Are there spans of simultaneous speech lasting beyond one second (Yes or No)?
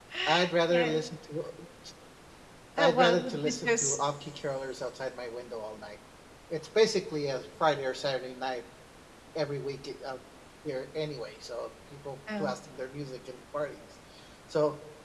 Yes